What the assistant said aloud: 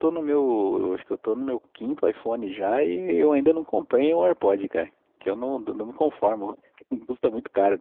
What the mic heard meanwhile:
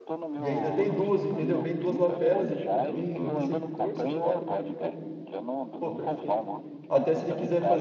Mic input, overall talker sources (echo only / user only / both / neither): both